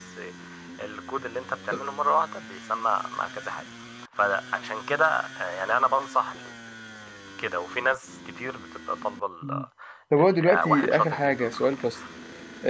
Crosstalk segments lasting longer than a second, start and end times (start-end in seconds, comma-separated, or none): 10.2-11.8